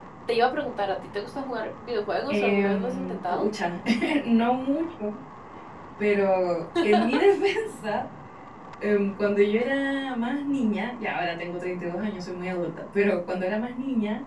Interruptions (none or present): present